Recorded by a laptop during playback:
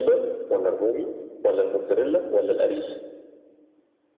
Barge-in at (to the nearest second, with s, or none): none